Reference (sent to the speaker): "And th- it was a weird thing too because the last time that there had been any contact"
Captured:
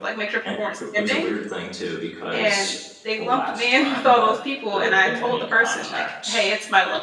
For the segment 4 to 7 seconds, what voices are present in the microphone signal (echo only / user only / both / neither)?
both